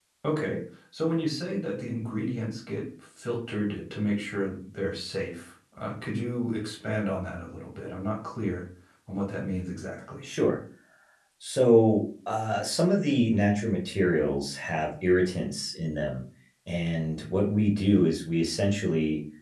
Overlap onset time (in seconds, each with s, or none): none